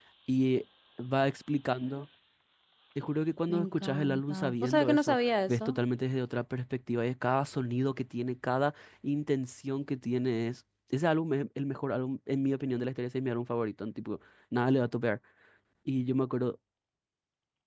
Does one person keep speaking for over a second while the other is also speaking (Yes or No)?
Yes